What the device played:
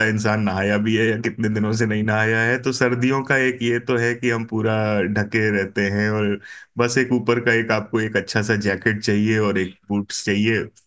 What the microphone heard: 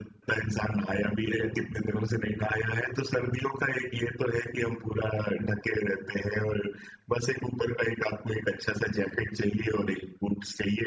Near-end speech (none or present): none